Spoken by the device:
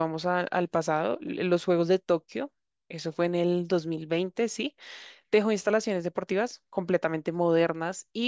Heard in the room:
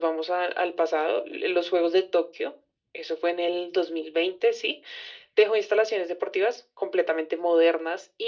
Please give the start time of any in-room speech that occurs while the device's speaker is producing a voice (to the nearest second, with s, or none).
none